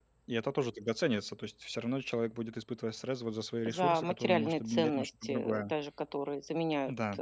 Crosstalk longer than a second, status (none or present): present